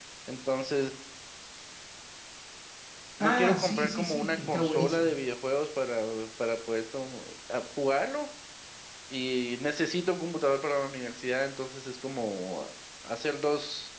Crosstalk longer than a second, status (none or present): present